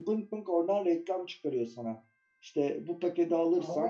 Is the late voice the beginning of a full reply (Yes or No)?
No